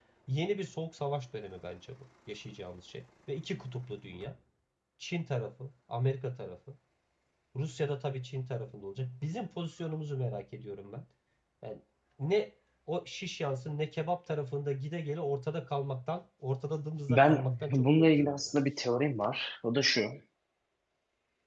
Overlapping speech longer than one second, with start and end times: 17.1-18.4

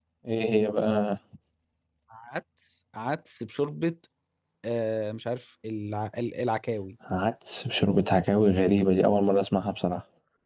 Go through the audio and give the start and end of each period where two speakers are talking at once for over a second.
none

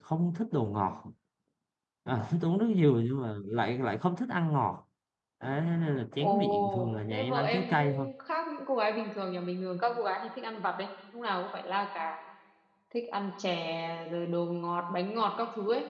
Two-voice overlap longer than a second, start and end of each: 6.2-8.1

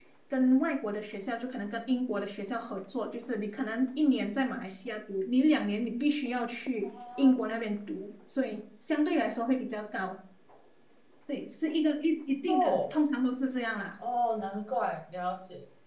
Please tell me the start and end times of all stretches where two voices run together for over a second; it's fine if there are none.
none

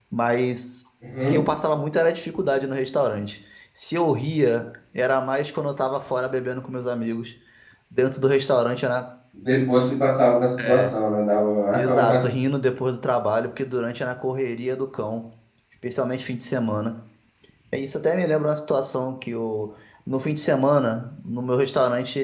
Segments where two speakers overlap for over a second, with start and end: none

